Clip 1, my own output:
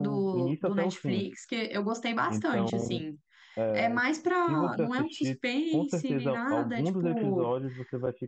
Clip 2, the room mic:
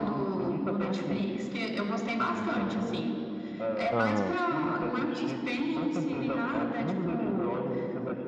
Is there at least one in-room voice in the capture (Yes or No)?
Yes